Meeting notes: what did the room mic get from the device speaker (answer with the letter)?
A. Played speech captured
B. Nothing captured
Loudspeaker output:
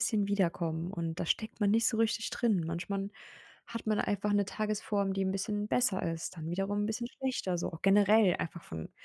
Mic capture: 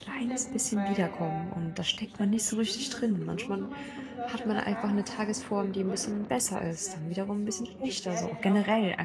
A